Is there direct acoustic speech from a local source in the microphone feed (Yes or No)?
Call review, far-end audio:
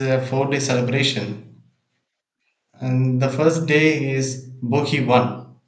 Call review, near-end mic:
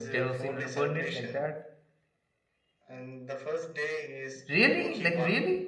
Yes